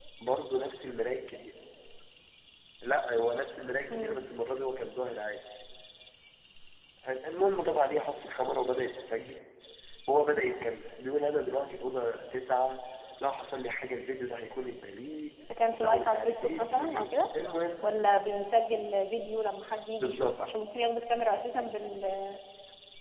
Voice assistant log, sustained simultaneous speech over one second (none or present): present